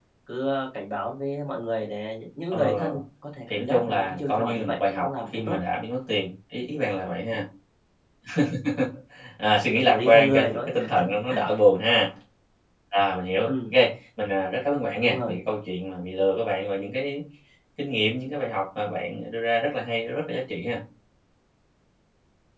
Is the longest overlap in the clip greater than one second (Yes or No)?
Yes